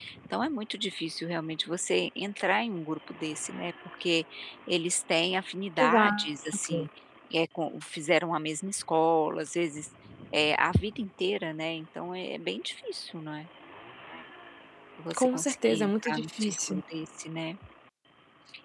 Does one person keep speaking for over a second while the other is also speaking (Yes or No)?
Yes